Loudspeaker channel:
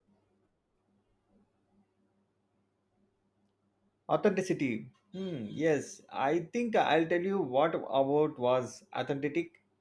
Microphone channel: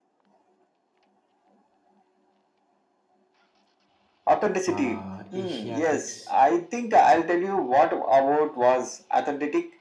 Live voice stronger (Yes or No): No